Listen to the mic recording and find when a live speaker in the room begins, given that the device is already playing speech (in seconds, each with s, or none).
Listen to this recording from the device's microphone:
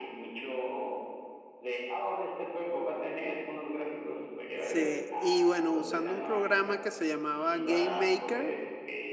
4.6 s